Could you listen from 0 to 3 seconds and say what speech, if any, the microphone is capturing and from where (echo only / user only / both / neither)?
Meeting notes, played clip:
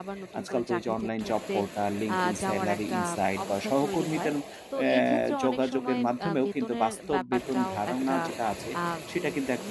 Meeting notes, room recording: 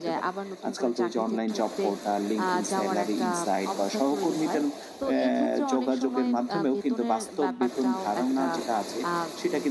echo only